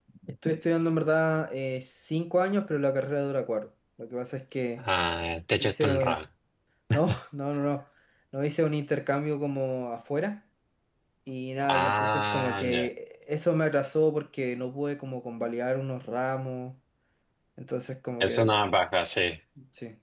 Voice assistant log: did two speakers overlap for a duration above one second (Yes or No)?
Yes